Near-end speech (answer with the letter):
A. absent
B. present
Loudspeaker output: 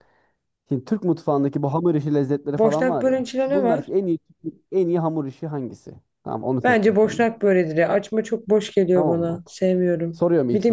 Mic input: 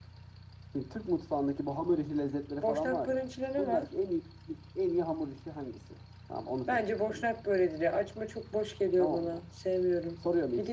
A